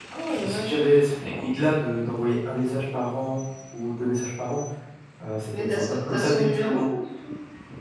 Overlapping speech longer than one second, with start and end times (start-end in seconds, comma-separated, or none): 5.5-6.8